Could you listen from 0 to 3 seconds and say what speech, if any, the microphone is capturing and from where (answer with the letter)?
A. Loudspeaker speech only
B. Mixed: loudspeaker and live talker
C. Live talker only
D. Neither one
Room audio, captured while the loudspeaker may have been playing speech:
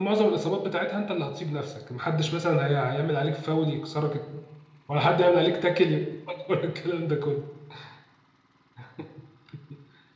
C